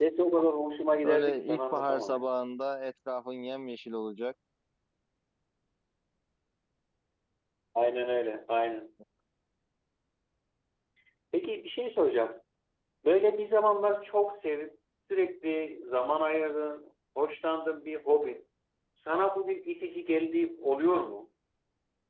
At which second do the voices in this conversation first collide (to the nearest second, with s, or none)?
1 s